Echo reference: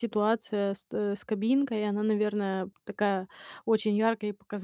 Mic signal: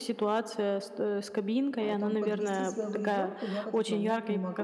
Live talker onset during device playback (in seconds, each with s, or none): 1.8 s